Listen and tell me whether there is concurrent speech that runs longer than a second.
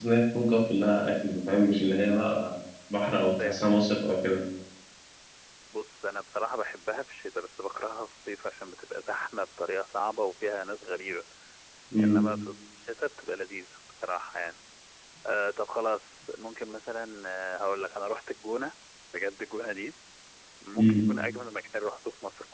No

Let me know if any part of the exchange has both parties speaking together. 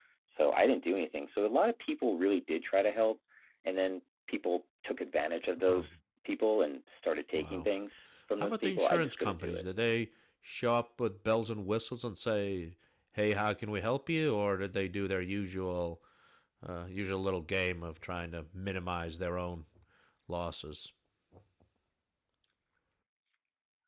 Yes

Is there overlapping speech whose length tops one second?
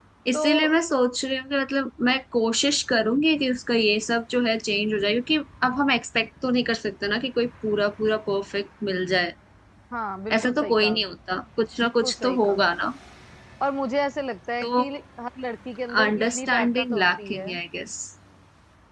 Yes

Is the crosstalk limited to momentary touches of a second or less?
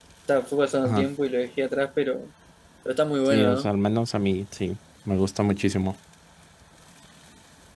Yes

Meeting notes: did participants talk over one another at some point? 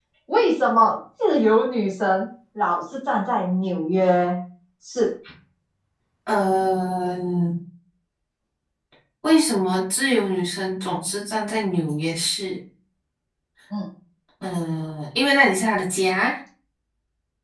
No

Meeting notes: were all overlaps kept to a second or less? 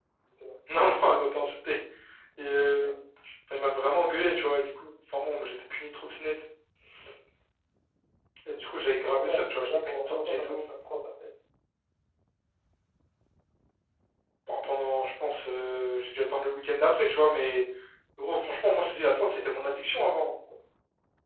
No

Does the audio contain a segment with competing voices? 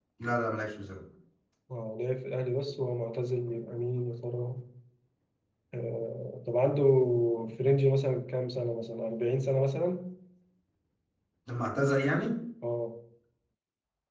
No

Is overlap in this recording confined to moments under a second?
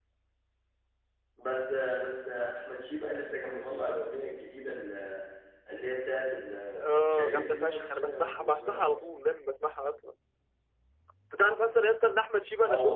No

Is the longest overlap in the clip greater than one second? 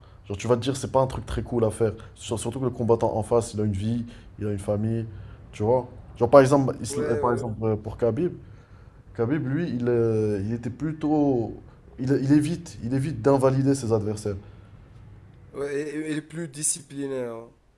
No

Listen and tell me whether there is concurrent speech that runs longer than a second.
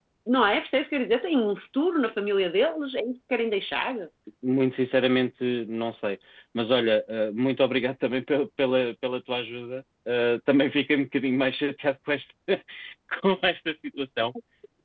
No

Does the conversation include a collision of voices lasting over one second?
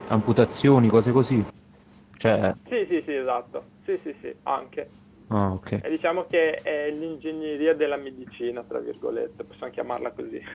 No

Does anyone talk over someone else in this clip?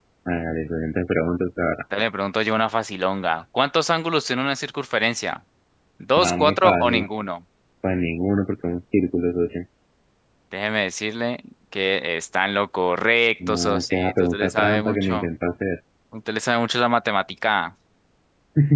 Yes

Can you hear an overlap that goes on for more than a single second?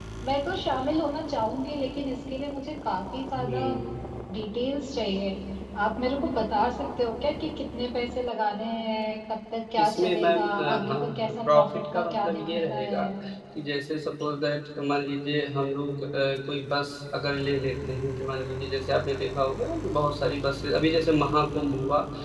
Yes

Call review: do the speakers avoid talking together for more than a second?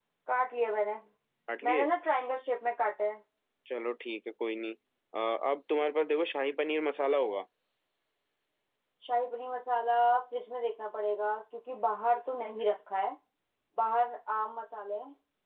Yes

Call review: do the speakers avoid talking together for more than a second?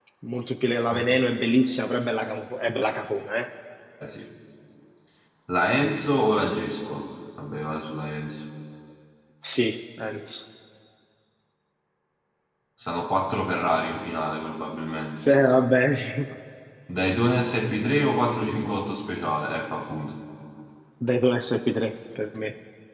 Yes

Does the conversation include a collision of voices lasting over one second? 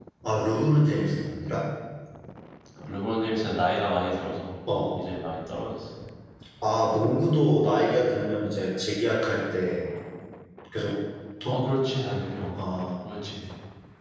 No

